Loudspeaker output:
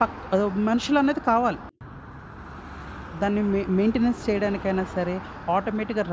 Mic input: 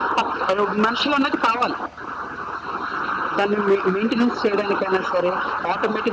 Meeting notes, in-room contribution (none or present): none